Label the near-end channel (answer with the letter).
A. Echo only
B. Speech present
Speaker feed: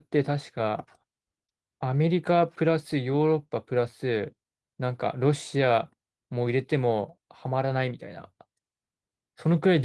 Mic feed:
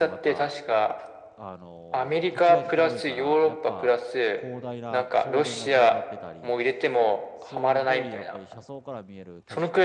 B